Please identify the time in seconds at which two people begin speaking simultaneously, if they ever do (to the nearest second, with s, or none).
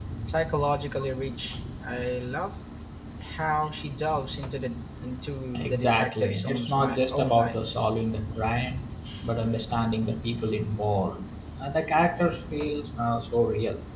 6 s